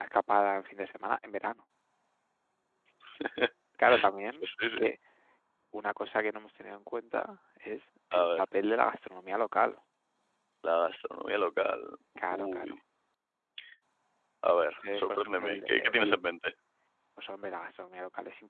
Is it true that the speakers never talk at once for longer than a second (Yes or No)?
No